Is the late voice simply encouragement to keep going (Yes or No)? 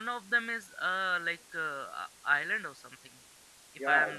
No